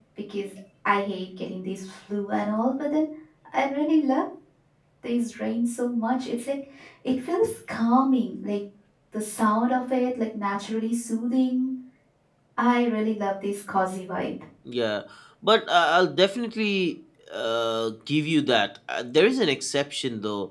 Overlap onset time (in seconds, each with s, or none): none